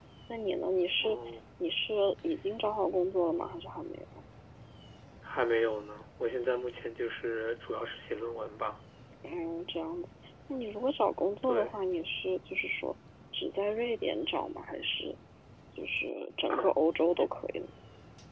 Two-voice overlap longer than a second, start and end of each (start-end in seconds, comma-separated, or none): none